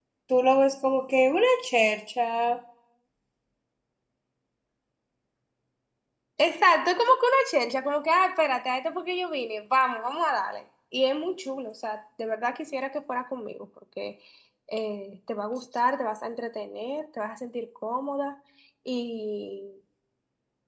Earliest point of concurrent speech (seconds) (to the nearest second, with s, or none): none